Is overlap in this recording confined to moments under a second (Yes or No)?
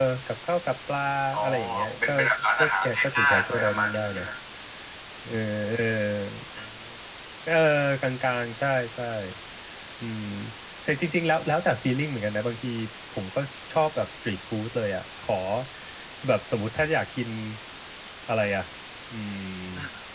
No